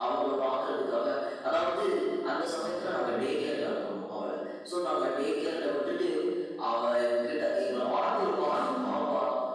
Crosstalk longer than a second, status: present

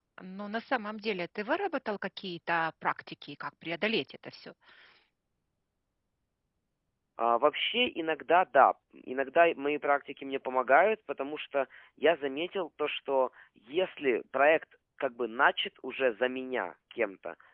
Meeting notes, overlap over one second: none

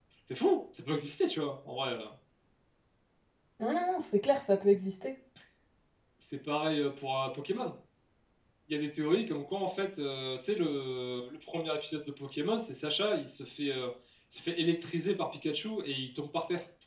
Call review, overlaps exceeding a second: none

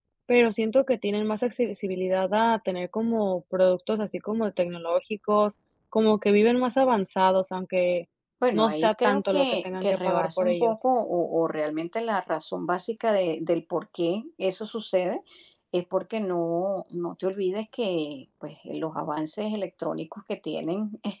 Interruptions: present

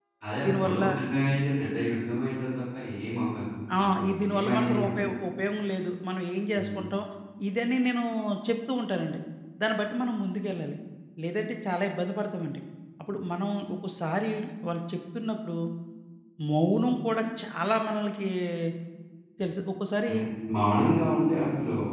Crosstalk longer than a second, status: present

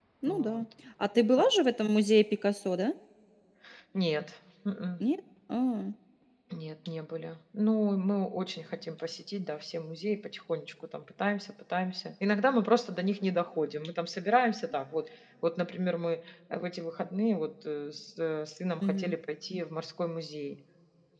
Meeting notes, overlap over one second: none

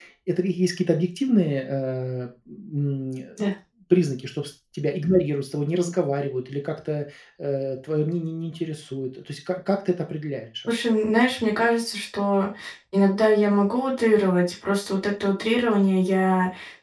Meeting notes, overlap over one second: none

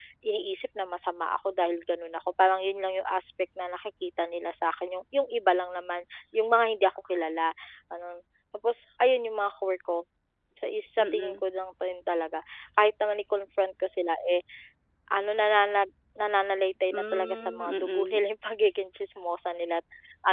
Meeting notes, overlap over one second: present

